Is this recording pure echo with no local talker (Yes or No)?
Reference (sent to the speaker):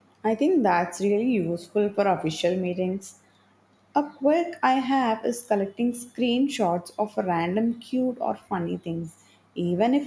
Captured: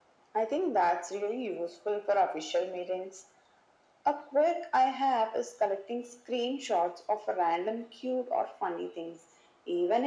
Yes